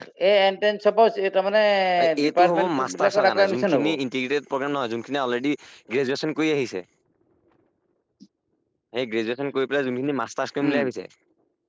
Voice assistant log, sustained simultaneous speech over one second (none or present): present